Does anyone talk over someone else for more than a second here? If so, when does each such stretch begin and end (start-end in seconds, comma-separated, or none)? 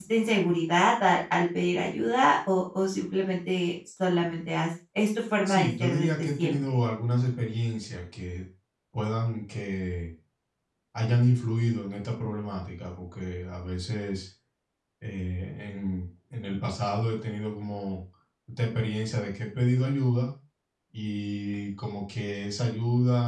5.5-6.8